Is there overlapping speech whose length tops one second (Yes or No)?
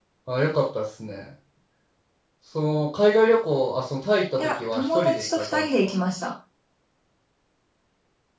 Yes